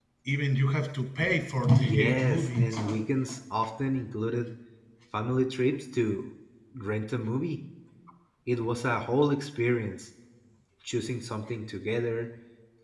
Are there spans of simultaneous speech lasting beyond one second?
Yes, from 1.8 s

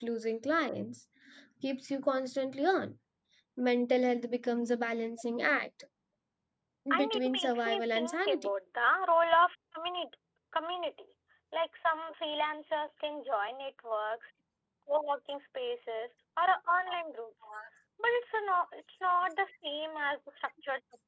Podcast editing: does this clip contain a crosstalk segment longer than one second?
Yes, from 7.0 s

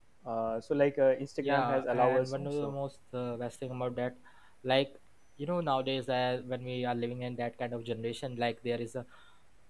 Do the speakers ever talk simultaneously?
Yes, from 1.4 s

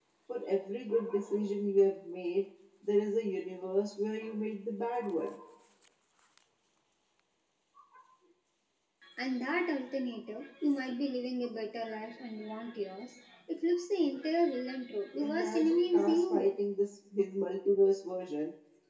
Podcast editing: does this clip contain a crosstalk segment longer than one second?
Yes, from 15.2 s

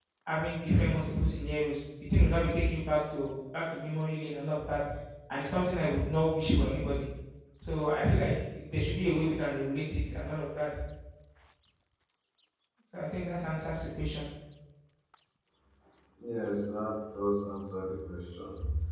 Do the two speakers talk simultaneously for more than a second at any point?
No

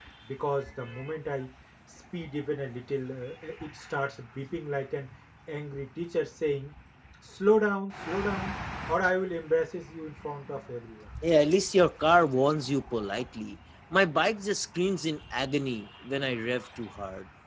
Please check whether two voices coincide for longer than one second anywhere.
No

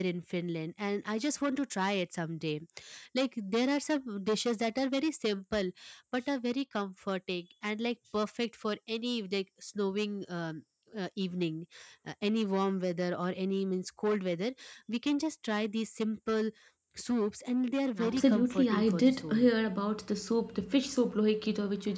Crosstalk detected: Yes, from 18.0 s

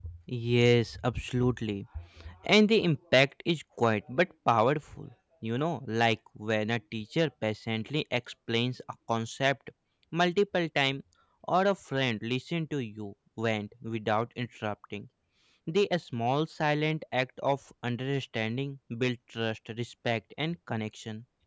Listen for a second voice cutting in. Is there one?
No

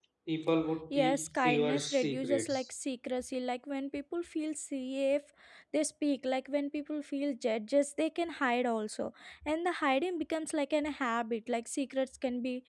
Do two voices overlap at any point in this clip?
Yes, from 0.9 s

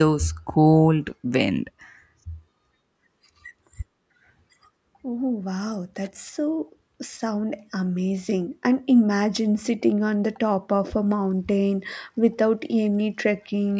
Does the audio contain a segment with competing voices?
No

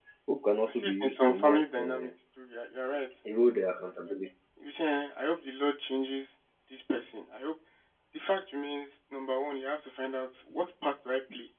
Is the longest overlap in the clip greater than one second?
Yes, from 0.7 s

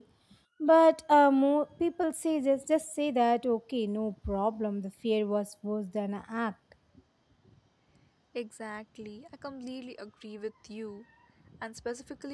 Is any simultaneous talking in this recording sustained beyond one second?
No

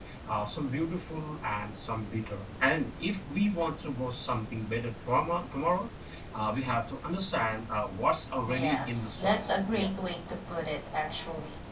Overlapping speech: Yes, from 8.4 s

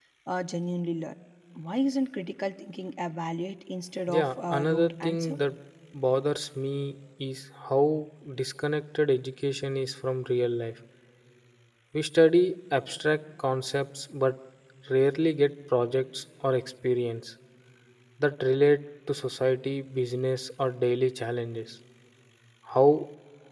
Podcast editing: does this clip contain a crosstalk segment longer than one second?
Yes, from 4.1 s

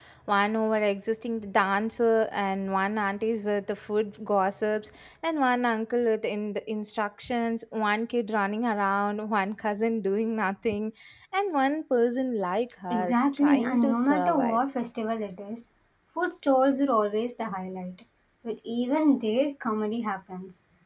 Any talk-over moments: Yes, from 12.9 s

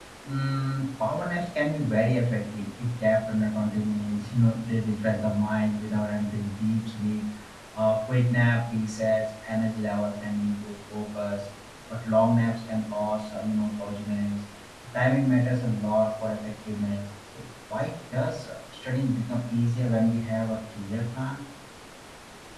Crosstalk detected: No

